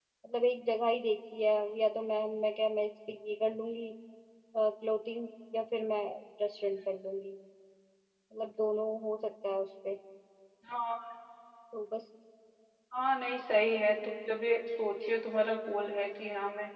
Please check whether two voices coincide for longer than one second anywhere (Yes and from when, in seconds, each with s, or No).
No